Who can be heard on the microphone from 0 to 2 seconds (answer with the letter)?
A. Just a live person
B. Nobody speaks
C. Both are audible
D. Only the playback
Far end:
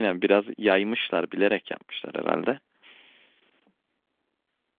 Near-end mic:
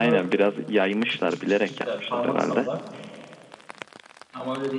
C